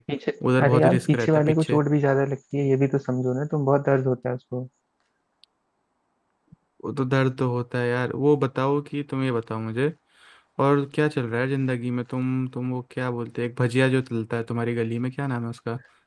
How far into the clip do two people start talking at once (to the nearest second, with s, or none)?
1 s